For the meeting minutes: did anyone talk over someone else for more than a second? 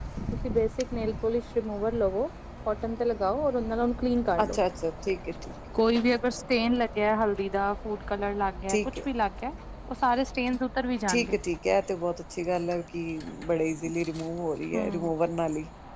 No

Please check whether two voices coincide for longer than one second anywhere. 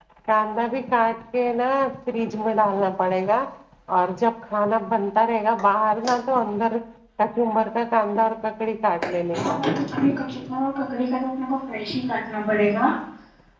No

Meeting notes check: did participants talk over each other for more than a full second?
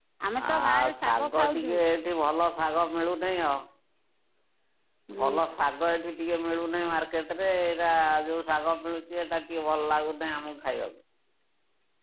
Yes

